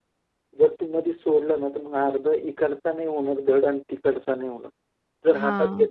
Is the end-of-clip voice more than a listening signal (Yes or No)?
No